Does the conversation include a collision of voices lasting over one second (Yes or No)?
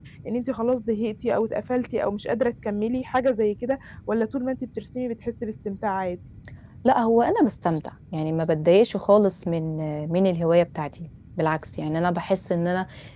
No